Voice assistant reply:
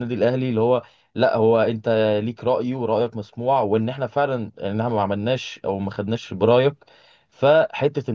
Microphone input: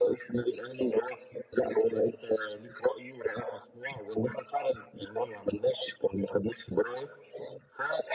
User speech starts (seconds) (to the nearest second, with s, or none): none